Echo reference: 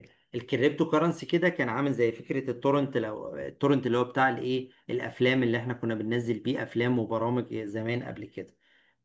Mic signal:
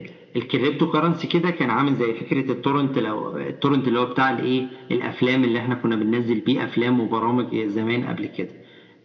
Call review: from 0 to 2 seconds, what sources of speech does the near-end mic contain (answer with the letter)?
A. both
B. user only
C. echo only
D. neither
C